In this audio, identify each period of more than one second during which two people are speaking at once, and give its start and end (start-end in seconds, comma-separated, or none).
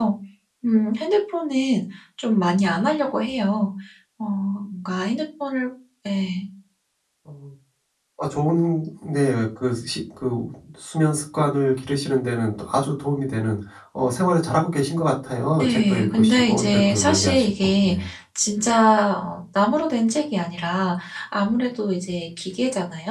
15.6-17.9